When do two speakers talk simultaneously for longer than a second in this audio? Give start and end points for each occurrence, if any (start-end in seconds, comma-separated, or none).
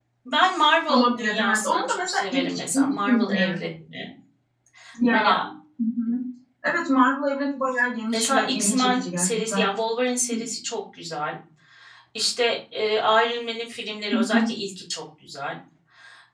0.9-3.6, 8.1-9.7